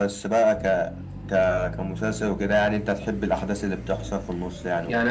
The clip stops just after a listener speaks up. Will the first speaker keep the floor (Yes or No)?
No